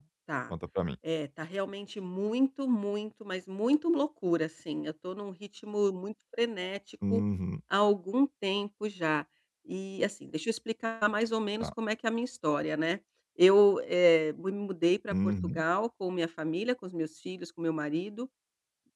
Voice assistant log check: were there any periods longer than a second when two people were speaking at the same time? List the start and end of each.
none

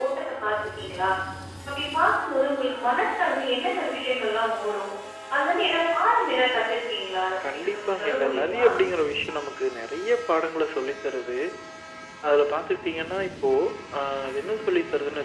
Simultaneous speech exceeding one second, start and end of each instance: 7.4-8.6

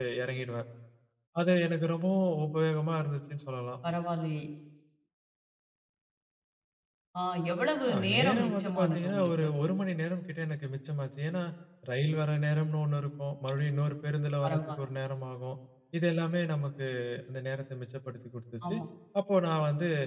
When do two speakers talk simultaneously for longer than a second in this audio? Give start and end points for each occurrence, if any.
7.9-9.5

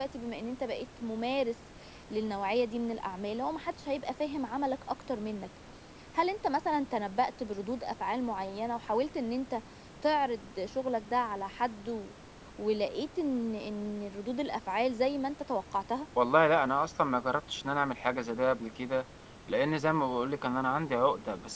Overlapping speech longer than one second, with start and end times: none

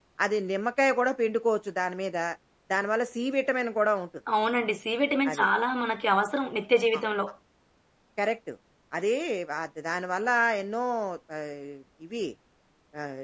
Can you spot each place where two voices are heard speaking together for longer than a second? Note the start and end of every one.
none

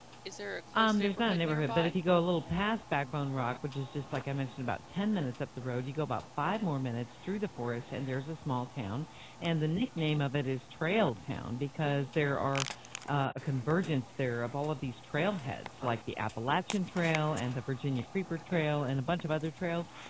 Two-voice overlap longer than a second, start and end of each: 0.8-2.0

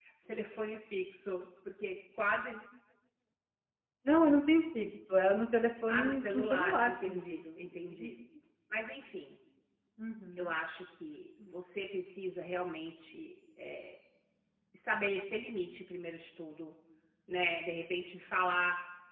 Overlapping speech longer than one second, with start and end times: 5.9-8.1

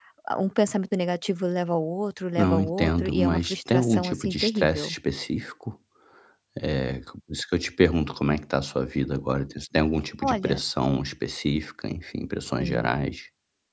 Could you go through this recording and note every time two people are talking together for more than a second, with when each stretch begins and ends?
2.4-5.0

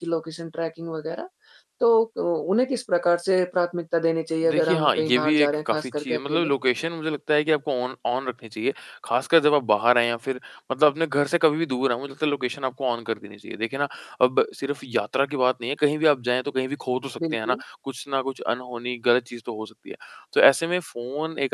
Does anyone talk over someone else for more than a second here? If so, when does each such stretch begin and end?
4.5-6.5

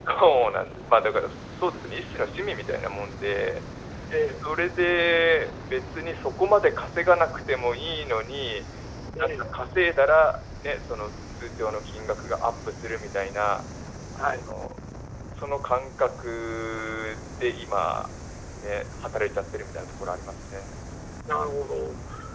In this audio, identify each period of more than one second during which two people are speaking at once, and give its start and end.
none

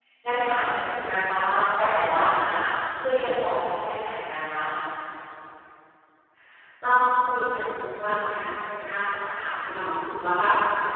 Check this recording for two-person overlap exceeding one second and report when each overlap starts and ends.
none

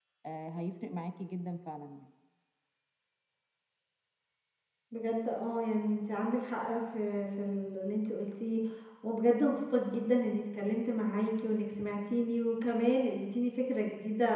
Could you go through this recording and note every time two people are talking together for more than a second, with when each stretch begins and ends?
none

